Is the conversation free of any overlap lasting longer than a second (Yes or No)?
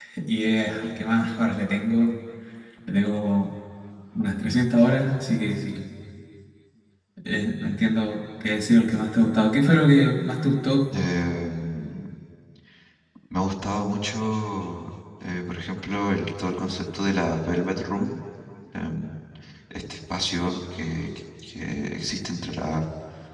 Yes